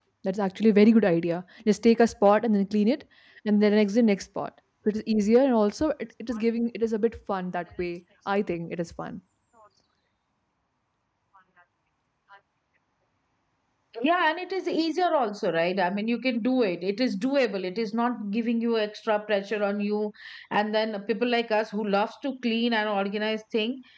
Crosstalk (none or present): none